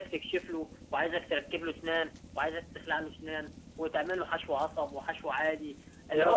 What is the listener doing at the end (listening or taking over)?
listening